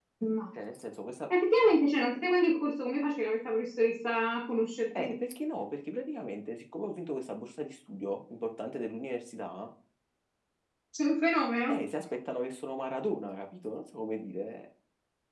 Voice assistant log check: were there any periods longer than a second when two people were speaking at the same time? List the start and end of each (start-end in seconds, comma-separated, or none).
none